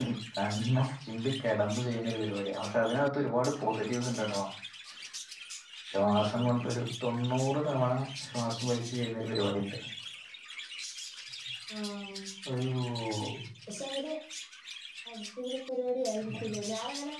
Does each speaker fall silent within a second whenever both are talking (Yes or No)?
Yes